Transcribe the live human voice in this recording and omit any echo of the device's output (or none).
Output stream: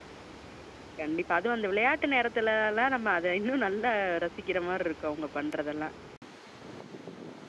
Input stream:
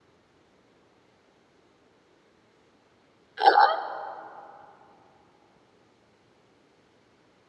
ஆ.